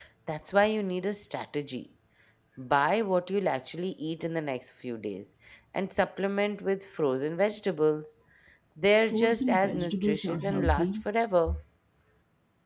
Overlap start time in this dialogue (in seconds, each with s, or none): 9.1 s